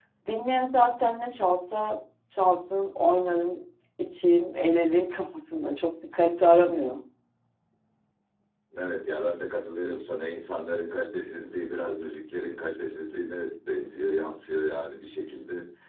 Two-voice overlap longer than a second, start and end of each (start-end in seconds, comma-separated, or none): none